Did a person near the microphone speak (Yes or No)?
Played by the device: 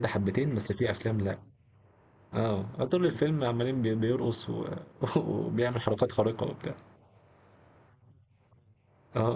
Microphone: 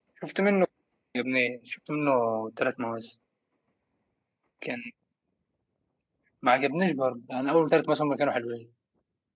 Yes